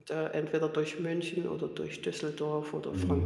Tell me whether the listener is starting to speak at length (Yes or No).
Yes